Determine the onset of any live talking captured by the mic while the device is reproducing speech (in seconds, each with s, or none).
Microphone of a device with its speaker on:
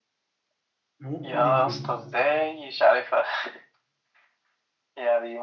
1.0 s